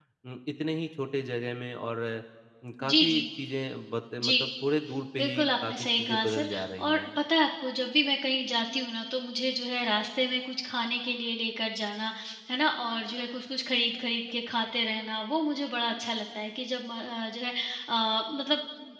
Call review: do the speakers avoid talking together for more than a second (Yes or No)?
No